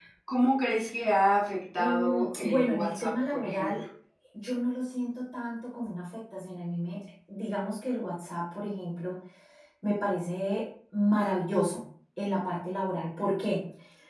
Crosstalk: present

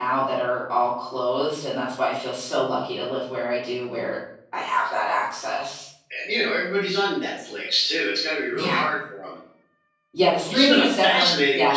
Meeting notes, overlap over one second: present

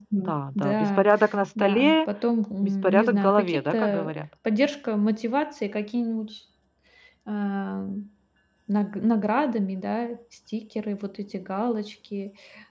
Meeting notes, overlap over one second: present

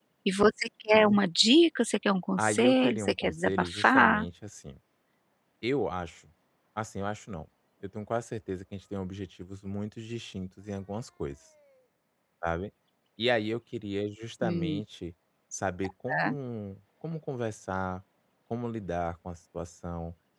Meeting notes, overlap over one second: present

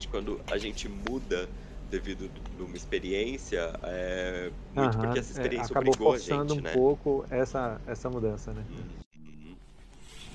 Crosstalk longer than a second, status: present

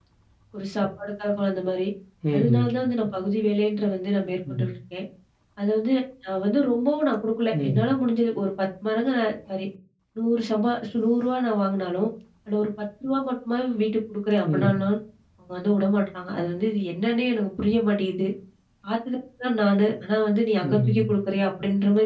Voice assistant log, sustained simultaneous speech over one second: none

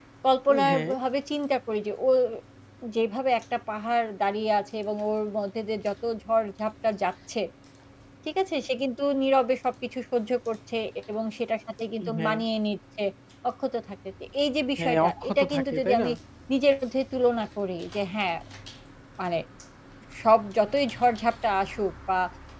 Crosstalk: present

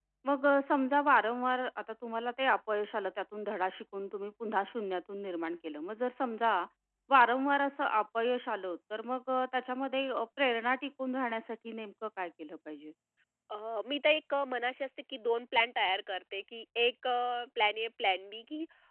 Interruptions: none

